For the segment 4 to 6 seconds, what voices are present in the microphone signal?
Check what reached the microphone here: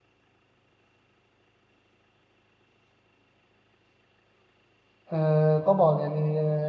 user only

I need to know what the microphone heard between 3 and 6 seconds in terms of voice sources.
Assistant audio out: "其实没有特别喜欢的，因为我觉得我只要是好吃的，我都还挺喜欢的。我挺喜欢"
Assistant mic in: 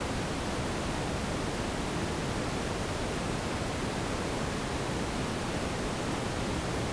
neither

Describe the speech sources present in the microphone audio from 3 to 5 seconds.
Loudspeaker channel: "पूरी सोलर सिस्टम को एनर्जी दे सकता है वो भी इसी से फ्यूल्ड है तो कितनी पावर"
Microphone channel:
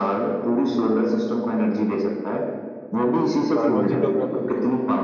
both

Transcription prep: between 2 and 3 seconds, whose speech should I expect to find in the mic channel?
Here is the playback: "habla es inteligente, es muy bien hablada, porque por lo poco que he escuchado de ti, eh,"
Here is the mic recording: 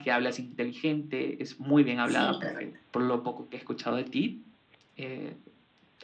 both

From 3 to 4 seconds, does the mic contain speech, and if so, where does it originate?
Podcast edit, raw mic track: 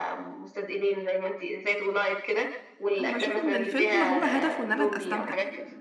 both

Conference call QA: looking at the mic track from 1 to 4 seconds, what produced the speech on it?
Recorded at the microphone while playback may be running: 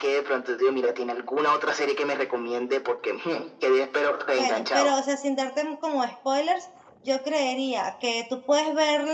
echo only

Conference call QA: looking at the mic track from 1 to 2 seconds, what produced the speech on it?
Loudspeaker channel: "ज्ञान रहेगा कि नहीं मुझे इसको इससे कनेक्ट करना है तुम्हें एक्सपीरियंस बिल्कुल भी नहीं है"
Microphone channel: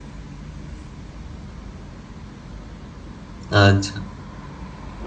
neither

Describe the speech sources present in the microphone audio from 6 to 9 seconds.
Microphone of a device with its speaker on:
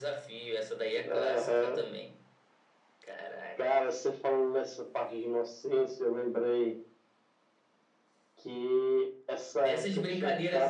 echo only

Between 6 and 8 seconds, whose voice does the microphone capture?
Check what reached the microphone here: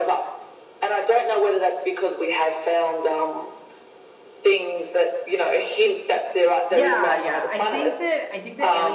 both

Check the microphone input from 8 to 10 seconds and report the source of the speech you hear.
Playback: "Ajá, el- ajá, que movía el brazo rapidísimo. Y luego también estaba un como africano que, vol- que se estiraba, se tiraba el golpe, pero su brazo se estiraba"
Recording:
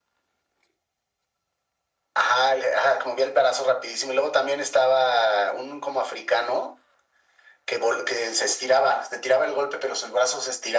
echo only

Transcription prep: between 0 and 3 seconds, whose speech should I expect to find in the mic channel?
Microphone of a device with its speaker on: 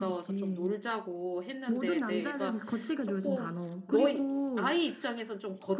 both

